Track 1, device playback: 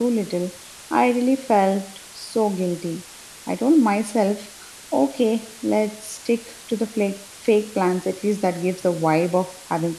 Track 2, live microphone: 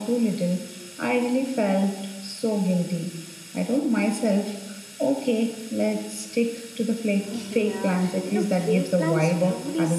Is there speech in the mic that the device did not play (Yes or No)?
Yes